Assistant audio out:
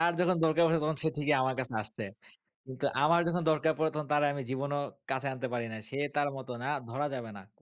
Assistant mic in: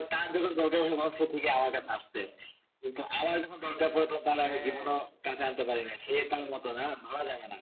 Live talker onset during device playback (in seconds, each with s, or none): 4.4 s